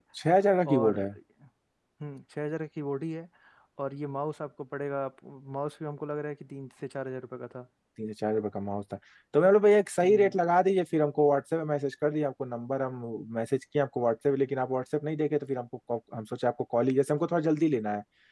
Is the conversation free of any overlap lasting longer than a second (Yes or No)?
Yes